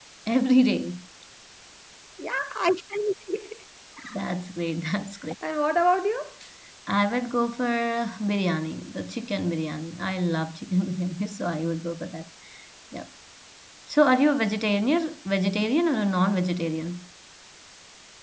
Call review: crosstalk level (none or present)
none